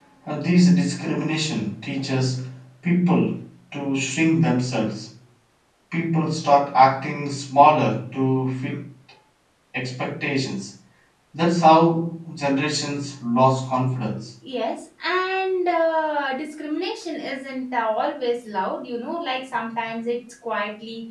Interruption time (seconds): none

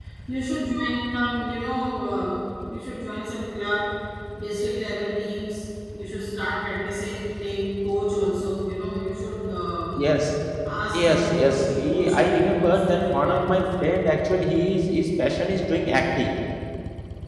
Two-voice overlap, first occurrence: 11 s

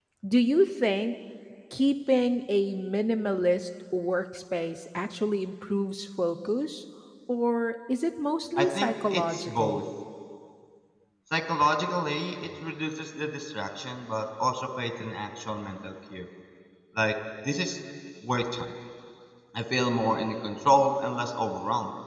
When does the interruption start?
9 s

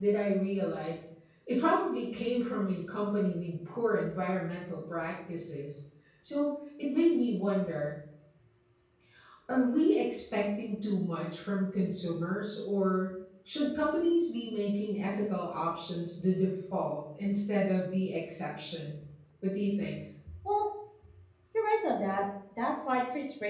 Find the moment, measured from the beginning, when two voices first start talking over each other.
none

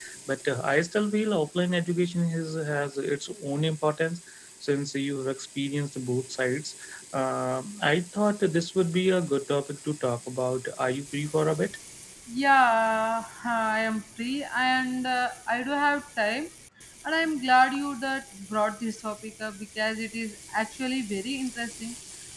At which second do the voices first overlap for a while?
none

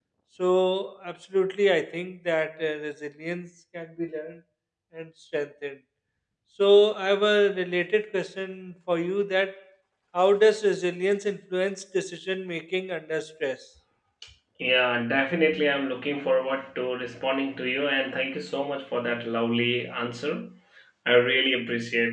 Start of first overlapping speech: none

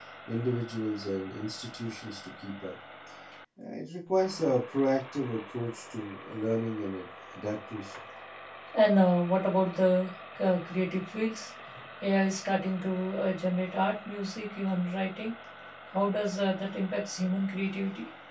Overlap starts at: none

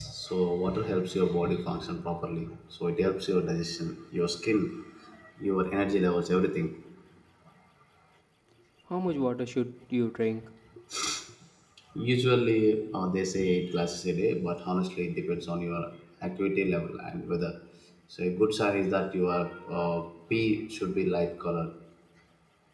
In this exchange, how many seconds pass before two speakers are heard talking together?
none

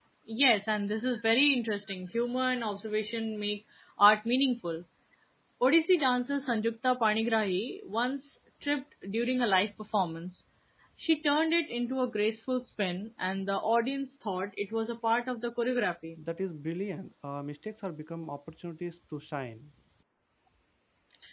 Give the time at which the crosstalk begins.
none

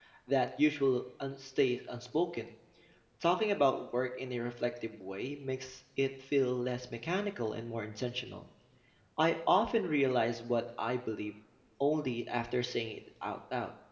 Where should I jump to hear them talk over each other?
none

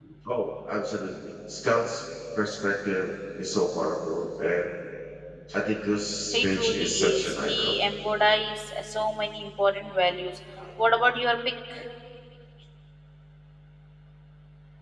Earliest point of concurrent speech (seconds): 6 s

